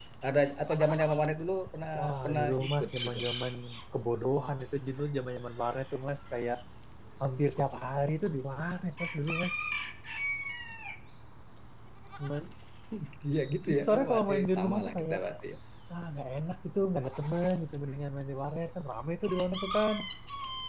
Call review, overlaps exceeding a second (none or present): present